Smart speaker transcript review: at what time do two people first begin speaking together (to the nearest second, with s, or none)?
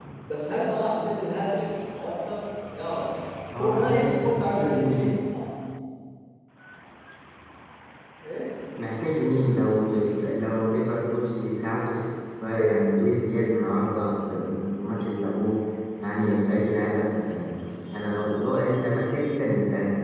4 s